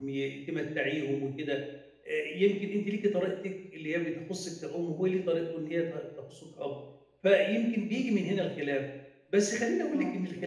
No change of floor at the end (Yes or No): Yes